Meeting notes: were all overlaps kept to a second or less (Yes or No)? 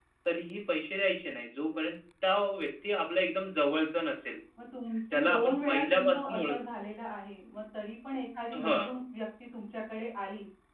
No